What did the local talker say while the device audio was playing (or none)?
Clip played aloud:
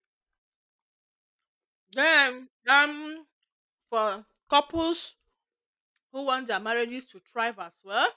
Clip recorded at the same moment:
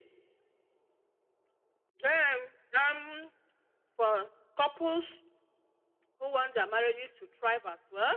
none